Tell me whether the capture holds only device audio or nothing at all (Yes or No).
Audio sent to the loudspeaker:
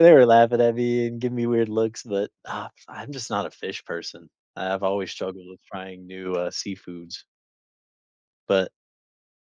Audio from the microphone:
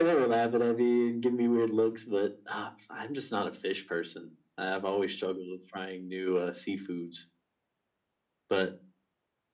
Yes